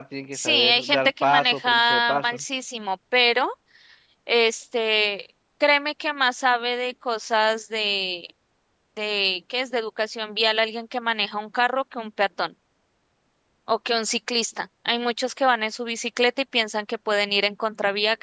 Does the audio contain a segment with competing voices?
Yes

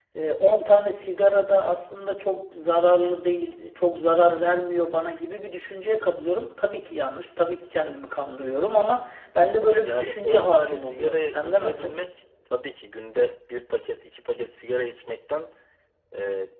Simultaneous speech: Yes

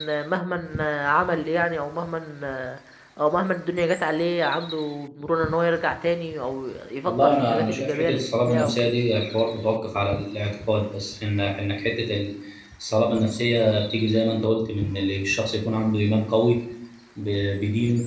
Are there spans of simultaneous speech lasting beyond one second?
Yes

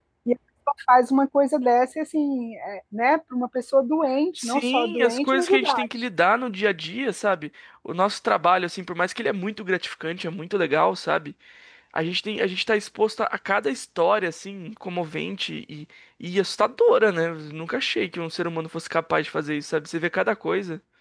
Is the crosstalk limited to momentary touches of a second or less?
No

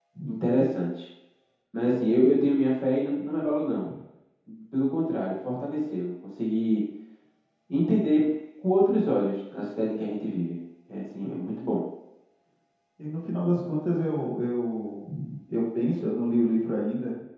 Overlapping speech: No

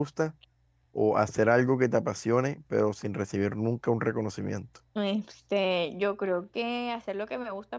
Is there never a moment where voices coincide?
Yes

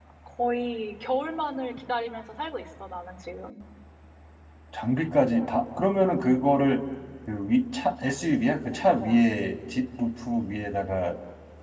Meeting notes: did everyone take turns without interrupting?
Yes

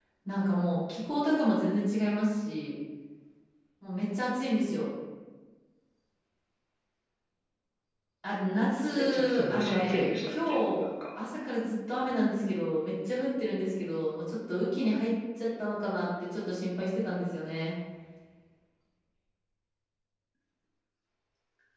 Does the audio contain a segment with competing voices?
Yes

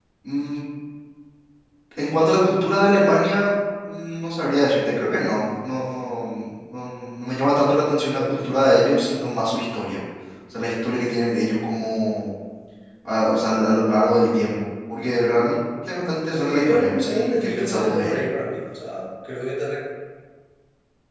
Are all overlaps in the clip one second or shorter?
No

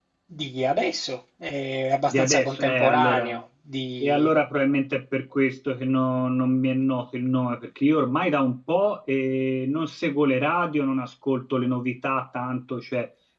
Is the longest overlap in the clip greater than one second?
Yes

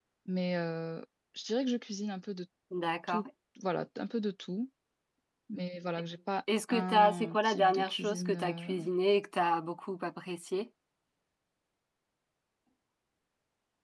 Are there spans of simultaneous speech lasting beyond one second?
Yes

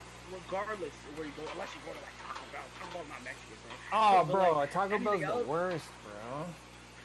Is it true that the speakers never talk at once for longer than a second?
No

